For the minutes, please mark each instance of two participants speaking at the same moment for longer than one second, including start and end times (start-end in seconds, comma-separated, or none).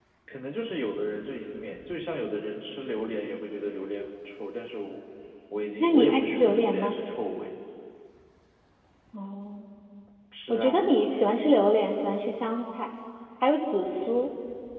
5.8-7.0